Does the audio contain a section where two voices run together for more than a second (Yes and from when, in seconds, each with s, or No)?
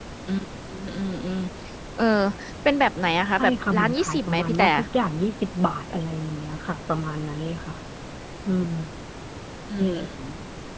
Yes, from 3.4 s